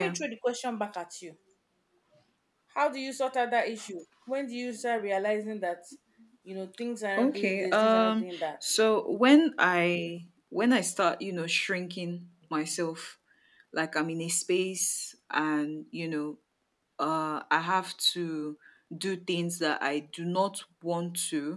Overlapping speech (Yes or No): Yes